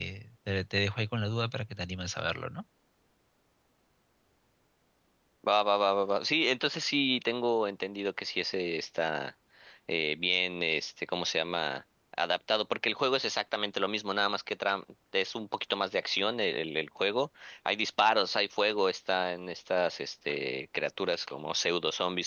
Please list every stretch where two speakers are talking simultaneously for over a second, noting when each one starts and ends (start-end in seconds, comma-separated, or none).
none